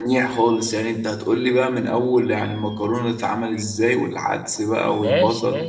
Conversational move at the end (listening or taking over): taking over